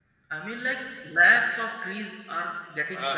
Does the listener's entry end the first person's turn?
Yes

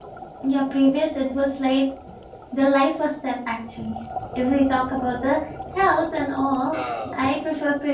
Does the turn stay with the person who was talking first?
Yes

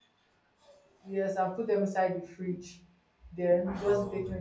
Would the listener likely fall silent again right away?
Yes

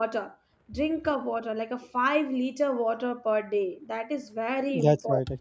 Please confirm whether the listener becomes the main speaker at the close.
Yes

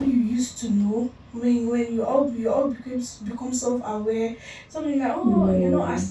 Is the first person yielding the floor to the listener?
No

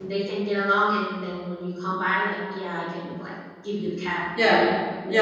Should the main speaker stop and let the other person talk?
Yes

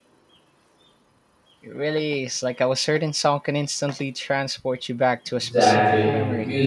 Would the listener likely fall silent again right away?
No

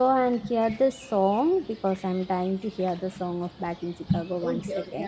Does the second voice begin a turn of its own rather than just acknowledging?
Yes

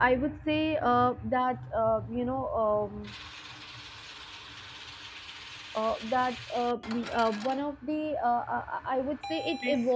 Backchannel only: Yes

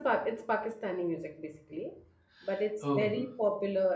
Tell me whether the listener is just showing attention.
Yes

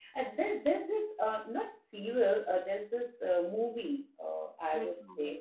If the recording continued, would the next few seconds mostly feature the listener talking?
No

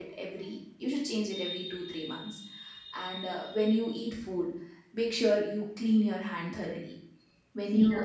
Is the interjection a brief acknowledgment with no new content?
Yes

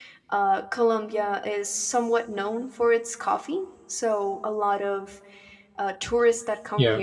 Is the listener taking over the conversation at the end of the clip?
No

